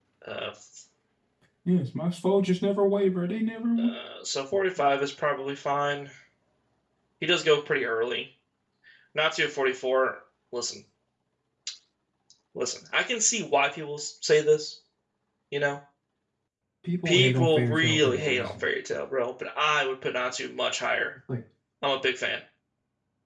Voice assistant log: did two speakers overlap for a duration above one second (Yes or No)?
Yes